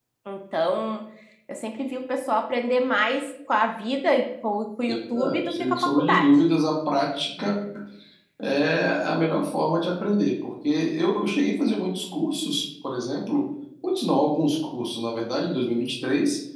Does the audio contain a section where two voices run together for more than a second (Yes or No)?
Yes